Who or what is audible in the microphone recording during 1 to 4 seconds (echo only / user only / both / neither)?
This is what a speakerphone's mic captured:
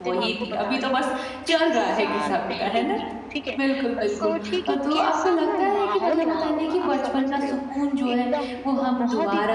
both